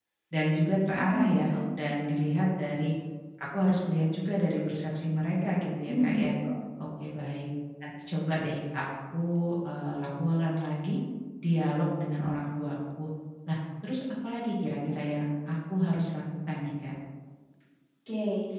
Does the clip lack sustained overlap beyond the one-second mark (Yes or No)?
Yes